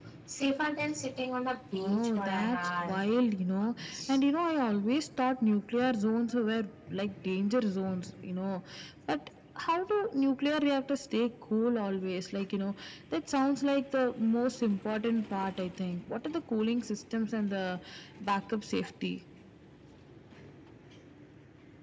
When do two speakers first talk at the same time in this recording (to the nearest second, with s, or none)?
2 s